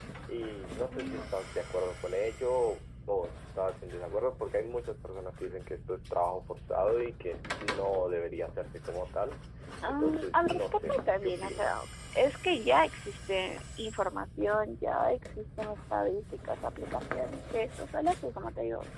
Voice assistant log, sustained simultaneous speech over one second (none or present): present